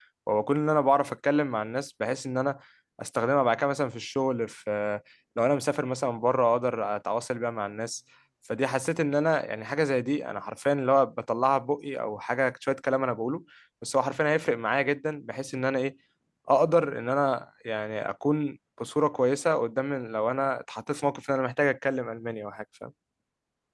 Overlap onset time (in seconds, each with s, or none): none